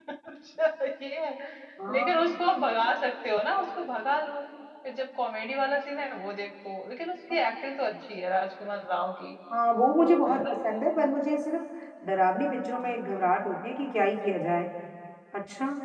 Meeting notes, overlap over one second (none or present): none